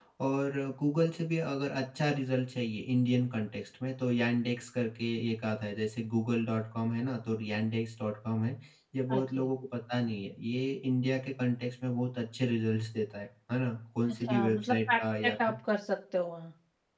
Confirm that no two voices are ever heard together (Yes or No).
No